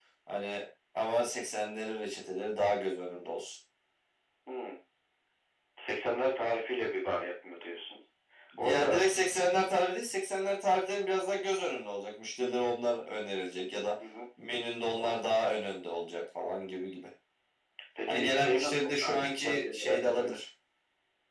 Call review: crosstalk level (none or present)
present